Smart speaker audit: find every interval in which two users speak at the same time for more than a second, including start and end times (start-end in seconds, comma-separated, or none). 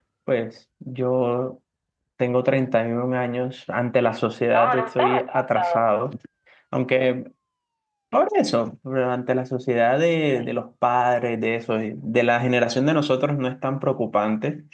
4.5-5.9